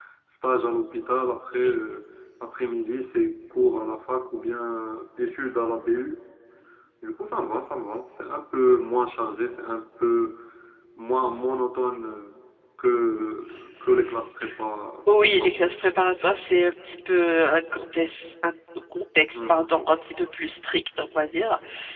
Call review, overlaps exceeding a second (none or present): none